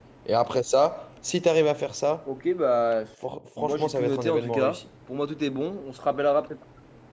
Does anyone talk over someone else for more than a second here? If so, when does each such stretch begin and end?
3.6-4.8

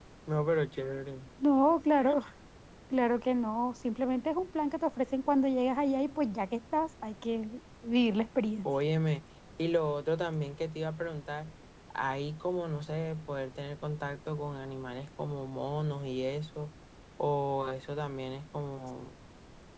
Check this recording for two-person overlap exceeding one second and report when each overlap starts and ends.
none

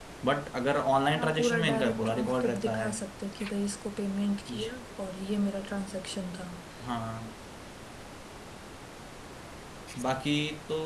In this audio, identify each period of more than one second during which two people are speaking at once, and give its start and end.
1.2-2.9

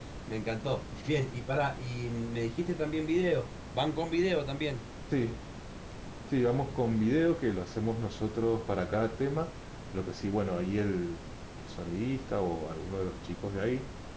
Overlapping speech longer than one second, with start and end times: none

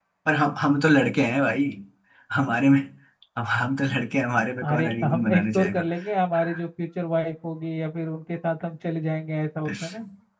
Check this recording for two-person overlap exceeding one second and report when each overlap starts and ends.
4.6-5.8

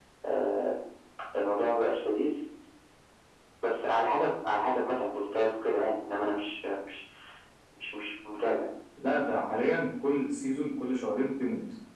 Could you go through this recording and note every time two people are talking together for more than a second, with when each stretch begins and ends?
none

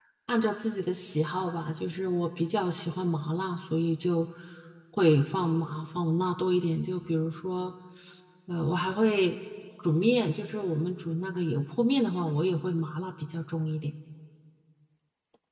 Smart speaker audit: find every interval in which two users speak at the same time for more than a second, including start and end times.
none

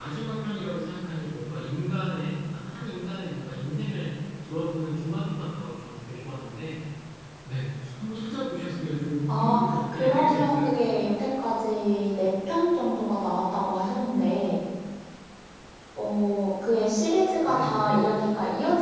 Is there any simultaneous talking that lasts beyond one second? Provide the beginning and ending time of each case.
9.4-10.7

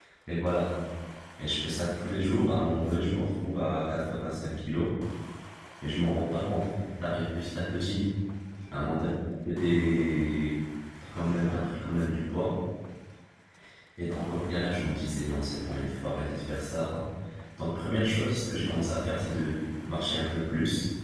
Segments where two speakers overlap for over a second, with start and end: none

